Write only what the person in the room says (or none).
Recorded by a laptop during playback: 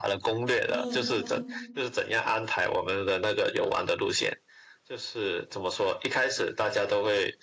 嗯嗯，